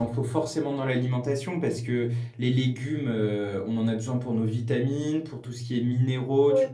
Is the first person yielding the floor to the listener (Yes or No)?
No